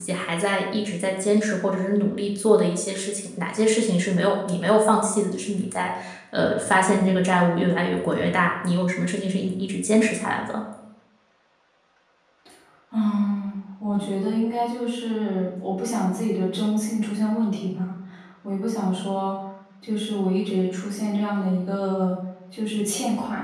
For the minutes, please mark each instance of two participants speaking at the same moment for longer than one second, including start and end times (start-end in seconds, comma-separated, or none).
none